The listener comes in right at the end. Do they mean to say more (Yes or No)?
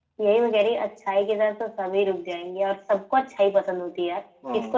No